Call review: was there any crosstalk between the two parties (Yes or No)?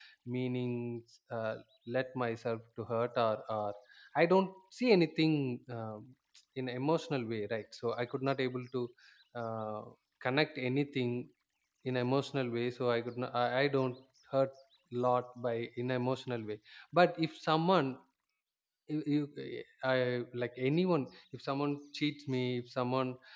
No